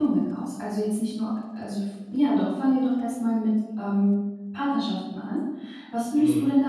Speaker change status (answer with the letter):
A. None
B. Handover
A